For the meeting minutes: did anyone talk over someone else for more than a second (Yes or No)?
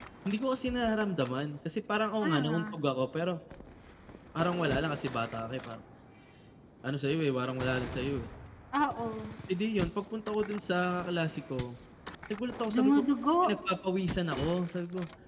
No